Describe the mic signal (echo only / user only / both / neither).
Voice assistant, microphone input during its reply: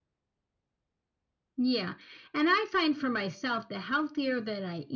echo only